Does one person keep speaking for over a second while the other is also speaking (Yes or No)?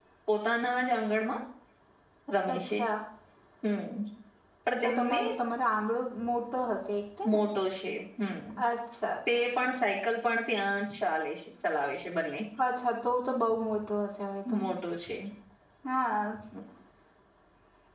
No